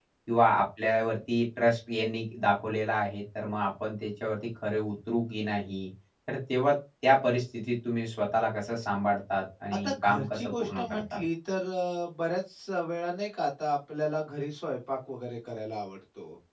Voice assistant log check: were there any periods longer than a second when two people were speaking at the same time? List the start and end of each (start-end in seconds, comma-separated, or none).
9.8-11.2